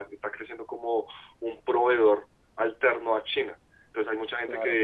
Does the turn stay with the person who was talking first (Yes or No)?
Yes